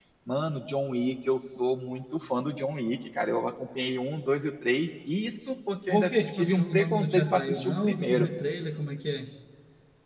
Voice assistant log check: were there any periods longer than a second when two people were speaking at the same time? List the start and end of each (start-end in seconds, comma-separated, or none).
5.9-8.3